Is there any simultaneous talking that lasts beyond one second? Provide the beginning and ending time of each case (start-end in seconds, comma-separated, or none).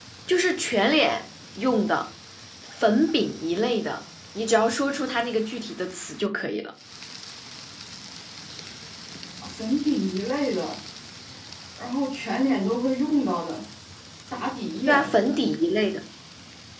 none